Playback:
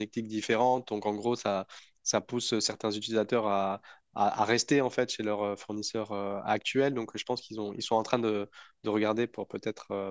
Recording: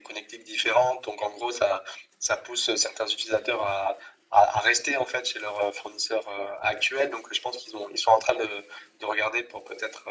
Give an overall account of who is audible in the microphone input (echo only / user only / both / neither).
echo only